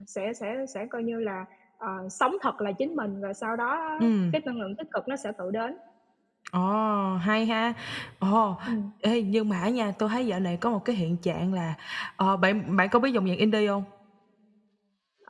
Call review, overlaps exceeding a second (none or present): none